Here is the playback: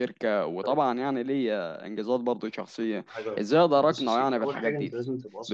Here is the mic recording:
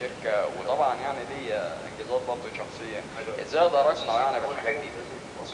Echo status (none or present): present